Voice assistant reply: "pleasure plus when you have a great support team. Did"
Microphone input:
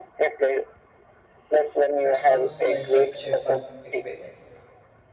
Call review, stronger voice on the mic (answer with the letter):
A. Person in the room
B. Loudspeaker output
B